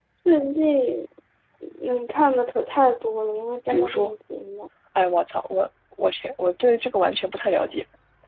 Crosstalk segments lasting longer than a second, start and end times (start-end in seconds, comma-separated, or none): none